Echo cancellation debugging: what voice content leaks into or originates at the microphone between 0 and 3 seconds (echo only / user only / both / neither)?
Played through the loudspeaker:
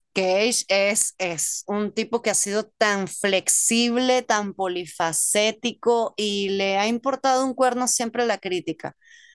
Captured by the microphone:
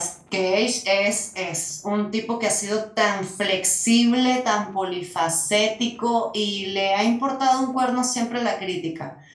echo only